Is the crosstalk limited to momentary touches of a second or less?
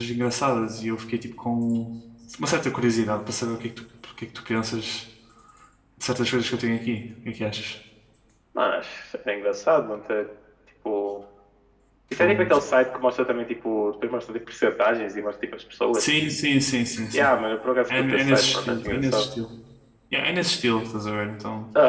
No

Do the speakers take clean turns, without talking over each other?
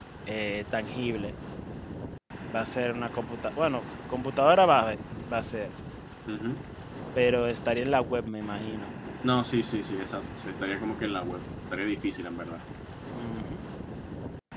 Yes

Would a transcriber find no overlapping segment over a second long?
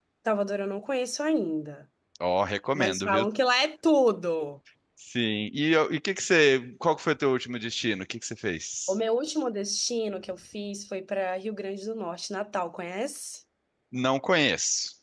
Yes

